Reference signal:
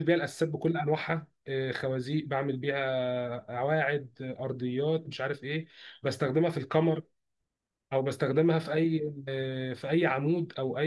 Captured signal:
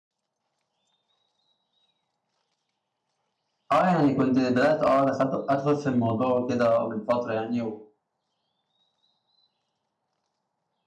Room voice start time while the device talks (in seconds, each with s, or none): 3.7 s